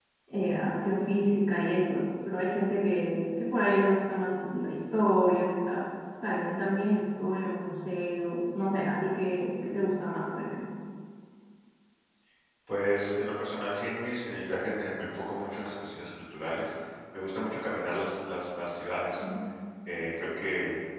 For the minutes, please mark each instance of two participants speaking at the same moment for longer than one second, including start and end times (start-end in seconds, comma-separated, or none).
none